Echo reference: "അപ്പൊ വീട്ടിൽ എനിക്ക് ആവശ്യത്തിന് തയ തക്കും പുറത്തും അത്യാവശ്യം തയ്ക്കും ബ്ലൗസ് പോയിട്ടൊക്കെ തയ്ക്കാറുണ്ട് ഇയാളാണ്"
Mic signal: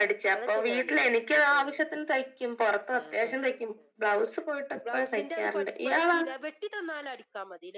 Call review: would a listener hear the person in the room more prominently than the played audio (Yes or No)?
No